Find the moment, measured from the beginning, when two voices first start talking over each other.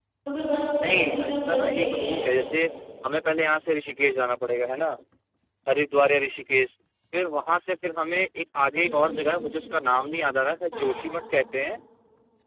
0.8 s

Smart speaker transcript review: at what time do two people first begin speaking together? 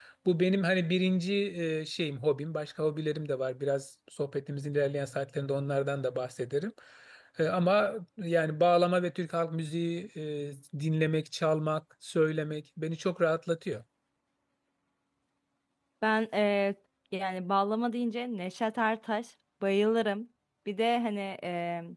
none

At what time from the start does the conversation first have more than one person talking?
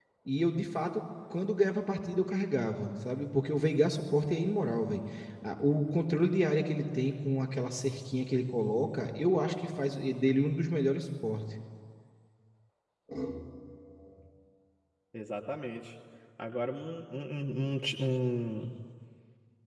none

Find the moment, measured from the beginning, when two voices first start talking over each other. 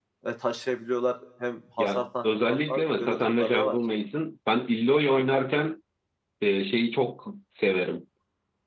1.8 s

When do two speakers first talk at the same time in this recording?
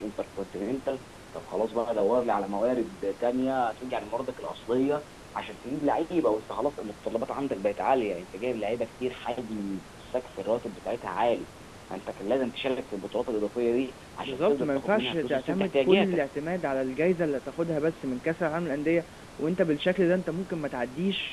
14.2 s

